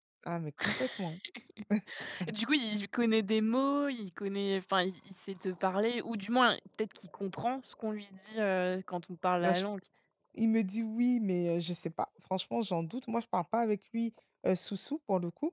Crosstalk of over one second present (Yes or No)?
No